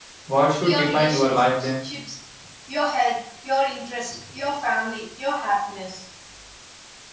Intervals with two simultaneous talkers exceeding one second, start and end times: 0.6-1.8

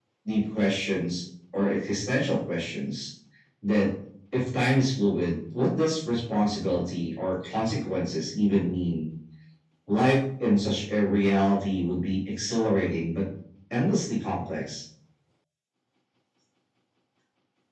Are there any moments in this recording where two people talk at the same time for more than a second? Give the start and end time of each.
none

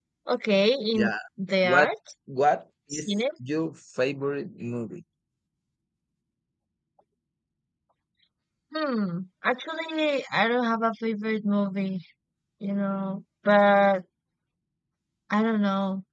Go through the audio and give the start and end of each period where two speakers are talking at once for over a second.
none

